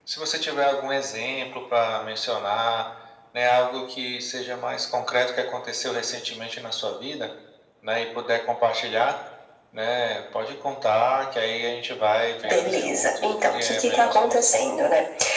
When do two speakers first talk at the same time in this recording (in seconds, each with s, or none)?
12.4 s